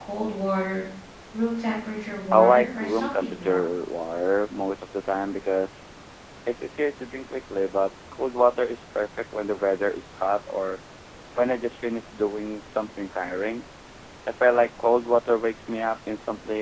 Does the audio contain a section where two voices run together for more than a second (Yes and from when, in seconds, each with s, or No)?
Yes, from 2.3 s